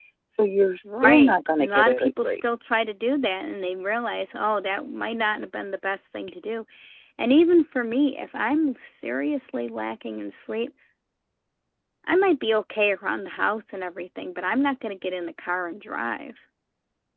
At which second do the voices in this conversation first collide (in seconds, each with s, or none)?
0.8 s